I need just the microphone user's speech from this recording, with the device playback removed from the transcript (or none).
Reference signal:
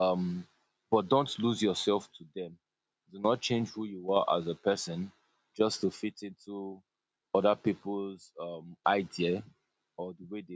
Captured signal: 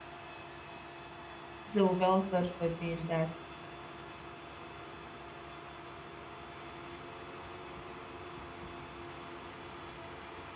So well thought for doing that.